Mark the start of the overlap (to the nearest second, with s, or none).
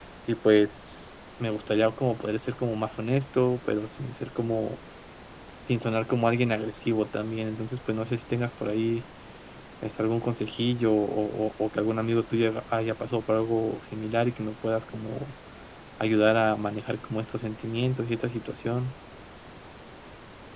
none